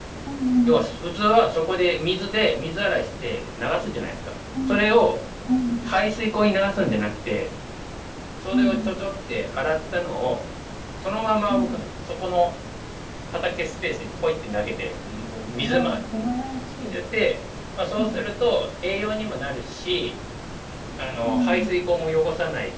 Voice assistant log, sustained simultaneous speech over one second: none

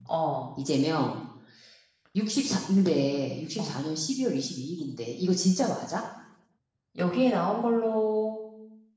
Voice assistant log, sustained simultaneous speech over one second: none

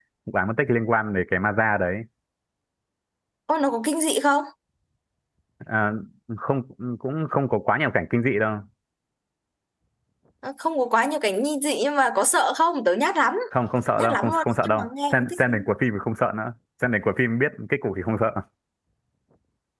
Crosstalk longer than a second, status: present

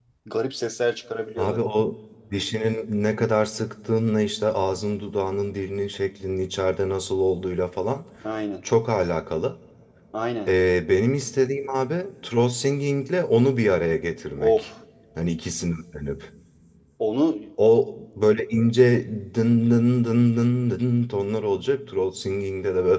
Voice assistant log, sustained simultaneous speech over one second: none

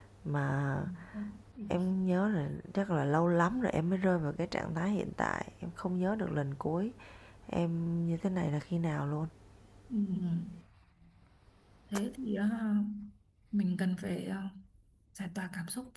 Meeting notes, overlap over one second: none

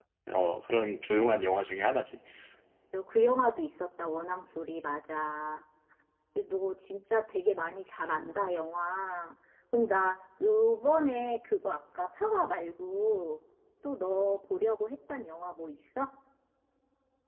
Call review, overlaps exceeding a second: none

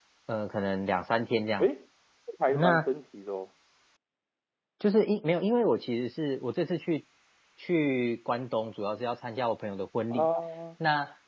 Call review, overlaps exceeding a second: none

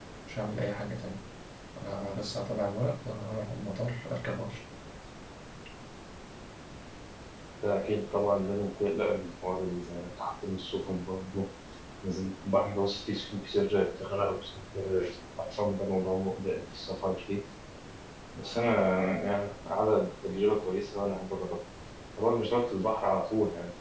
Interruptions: none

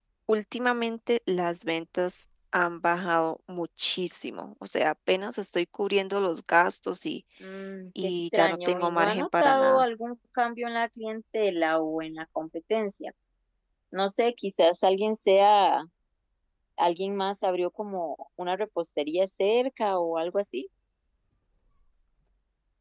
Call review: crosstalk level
present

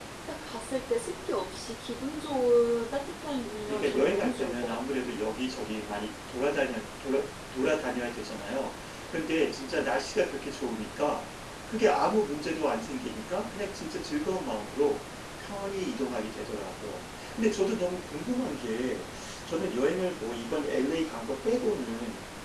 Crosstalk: present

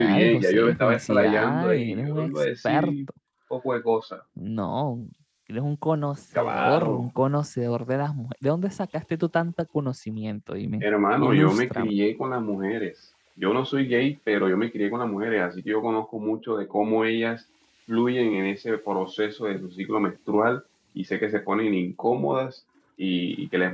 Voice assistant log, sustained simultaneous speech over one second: present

